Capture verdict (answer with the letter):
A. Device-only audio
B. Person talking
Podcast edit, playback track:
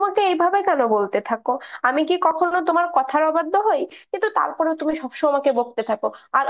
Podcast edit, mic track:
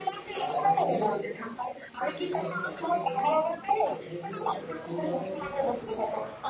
B